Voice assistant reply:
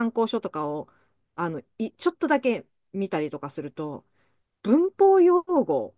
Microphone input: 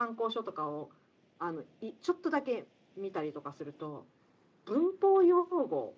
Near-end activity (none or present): none